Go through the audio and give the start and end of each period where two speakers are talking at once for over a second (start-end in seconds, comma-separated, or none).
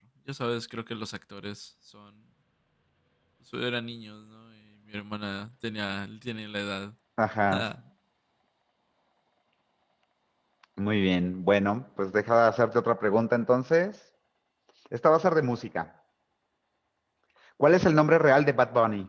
none